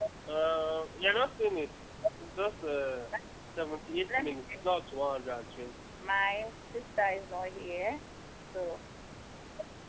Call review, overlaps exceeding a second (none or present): none